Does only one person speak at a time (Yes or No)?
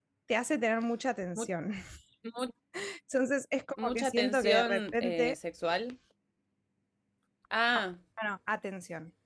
No